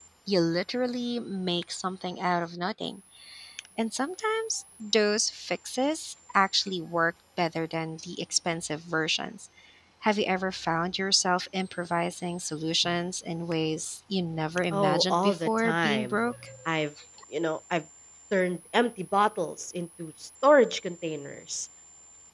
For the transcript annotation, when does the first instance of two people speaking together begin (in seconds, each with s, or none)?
14.7 s